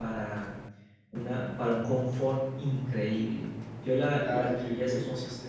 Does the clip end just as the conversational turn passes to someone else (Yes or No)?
Yes